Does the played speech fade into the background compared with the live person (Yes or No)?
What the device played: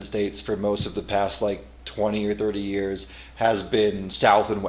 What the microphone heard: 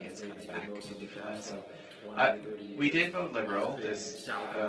Yes